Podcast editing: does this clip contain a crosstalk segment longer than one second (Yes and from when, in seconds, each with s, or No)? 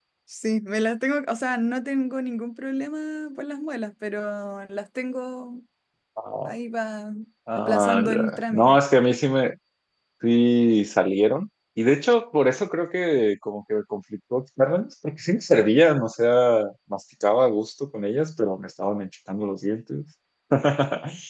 Yes, from 7.6 s